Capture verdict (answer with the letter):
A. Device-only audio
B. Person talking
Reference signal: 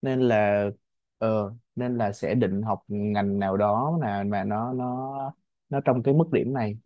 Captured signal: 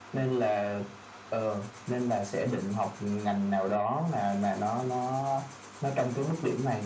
A